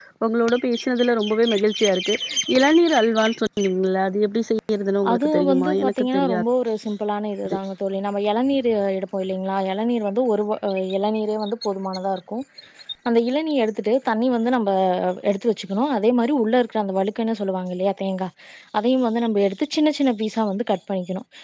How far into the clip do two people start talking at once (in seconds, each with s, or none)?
5.0 s